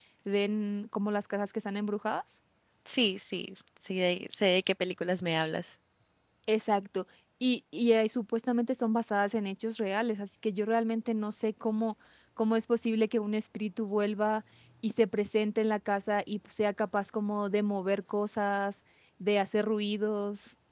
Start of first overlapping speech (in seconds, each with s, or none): none